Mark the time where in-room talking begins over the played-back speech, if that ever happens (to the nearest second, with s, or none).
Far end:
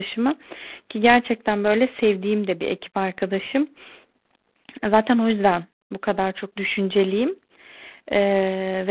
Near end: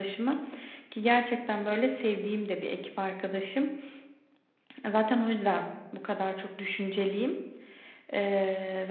none